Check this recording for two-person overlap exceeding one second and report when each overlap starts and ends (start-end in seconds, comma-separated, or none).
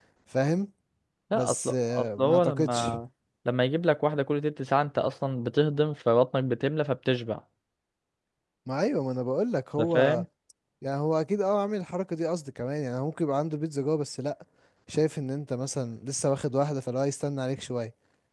1.3-2.9